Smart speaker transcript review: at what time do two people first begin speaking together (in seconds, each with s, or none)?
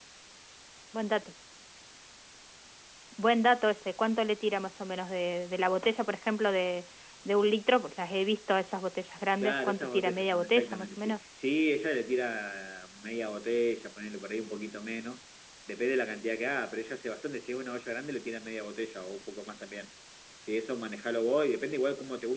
9.4 s